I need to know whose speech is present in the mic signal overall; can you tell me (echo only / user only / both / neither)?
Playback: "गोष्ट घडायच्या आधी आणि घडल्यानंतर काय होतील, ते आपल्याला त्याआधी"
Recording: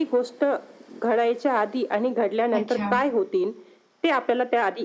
both